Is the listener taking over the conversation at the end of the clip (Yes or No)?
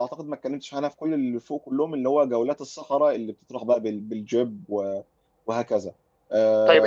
Yes